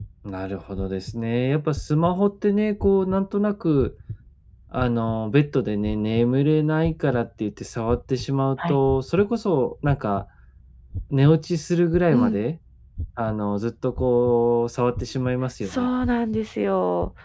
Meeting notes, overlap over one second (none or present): none